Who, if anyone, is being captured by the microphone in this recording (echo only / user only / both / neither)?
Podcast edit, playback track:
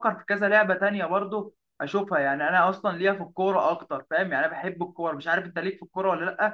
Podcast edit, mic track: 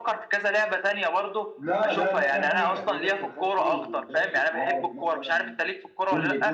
both